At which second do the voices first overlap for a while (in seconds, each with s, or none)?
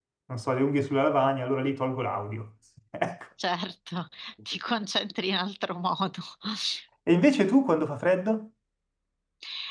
none